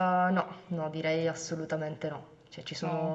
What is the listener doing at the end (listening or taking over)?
listening